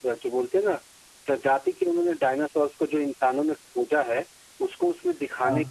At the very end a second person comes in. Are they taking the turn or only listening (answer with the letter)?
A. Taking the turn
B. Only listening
B